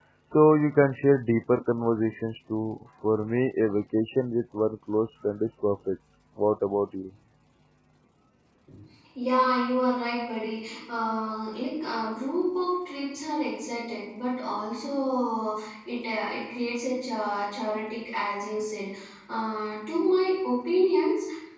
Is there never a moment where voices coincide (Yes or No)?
Yes